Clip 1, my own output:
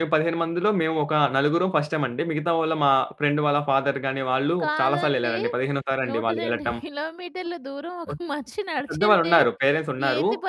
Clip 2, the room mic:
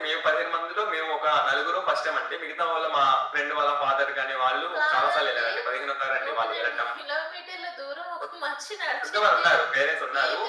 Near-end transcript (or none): none